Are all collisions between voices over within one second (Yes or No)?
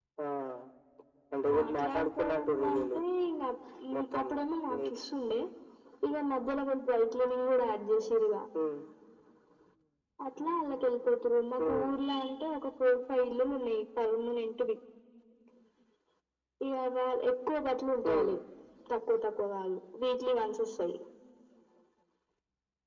No